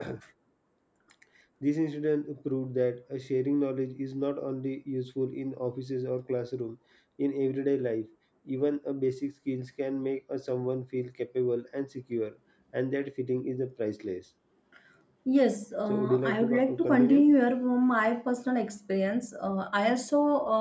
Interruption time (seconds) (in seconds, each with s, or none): 15.9 s